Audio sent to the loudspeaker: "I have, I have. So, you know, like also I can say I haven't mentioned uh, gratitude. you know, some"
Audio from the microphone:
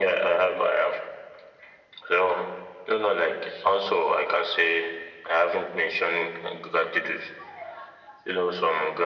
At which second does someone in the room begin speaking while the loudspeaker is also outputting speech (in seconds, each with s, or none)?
none